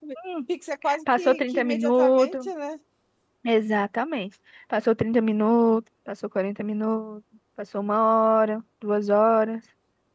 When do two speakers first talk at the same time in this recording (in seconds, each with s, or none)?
1.1 s